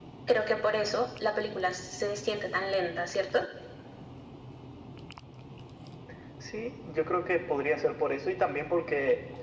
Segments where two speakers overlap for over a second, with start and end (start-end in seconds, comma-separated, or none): none